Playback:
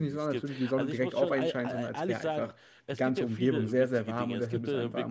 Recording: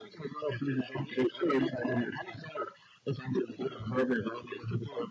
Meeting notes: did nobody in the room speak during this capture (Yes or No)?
Yes